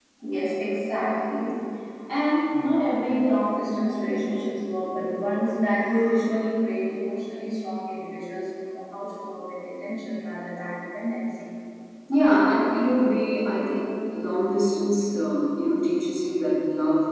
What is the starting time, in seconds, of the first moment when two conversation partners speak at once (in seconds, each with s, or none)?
none